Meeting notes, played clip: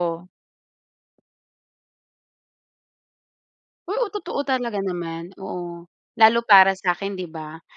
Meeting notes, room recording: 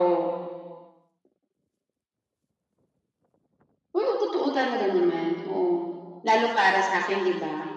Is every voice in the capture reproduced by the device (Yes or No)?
Yes